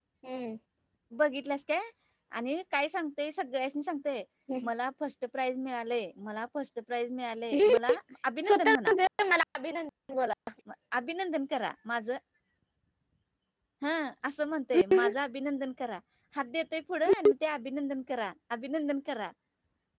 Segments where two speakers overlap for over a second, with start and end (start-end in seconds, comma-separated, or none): none